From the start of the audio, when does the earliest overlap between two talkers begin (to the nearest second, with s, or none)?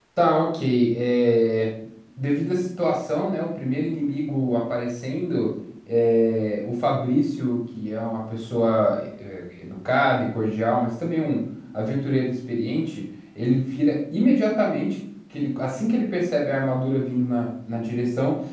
none